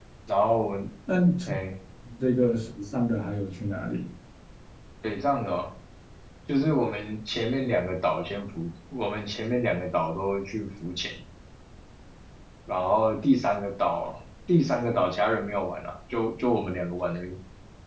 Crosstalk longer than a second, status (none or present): none